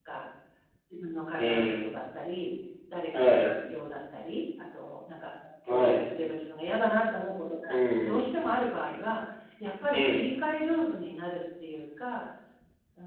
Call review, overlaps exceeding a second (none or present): none